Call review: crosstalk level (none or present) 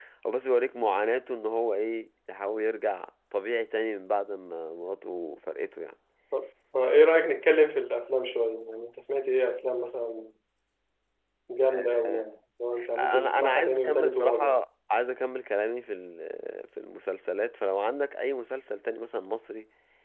present